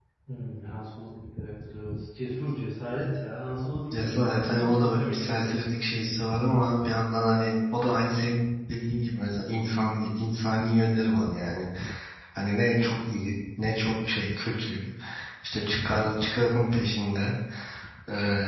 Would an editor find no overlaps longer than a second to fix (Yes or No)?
No